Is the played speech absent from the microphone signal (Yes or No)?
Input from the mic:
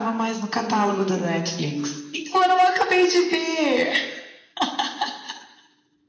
No